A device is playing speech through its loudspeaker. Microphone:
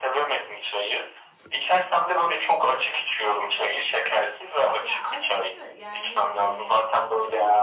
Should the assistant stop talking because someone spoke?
Yes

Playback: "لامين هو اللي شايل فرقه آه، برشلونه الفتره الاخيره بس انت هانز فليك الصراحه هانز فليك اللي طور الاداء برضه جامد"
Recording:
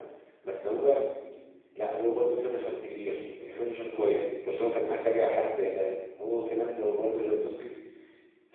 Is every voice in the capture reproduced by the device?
No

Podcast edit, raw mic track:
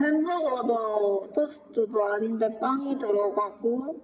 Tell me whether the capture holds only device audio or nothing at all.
Yes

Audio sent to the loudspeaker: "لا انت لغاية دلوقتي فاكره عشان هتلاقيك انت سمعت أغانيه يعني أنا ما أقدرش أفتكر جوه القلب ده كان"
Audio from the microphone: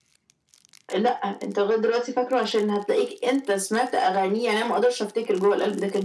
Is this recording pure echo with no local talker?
Yes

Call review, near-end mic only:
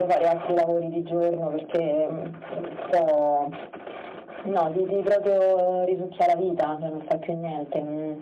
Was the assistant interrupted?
No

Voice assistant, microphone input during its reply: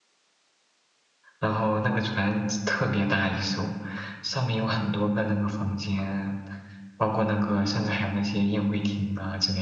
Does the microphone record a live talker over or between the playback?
Yes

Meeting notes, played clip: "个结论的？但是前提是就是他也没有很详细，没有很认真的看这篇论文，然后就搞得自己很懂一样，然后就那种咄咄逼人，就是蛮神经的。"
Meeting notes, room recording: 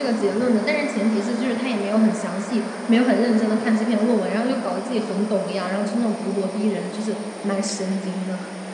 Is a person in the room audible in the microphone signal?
No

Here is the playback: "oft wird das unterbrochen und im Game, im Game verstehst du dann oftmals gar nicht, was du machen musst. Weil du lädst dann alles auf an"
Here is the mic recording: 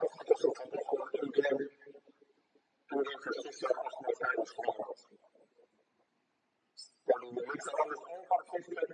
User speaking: No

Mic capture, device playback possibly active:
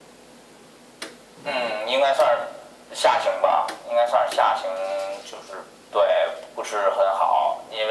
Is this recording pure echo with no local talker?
Yes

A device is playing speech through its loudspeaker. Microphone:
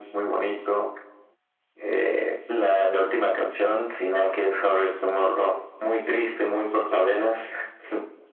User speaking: No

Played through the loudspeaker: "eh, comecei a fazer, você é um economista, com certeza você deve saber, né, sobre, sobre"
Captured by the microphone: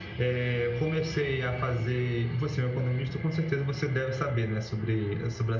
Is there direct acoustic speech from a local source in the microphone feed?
No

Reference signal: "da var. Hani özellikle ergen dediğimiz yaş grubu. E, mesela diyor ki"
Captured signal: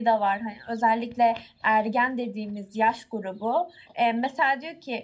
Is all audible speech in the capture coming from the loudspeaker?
Yes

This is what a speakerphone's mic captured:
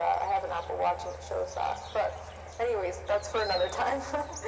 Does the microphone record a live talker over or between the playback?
No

